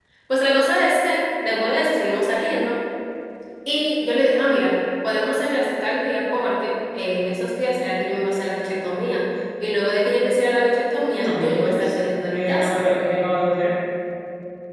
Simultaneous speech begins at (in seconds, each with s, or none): 11.2 s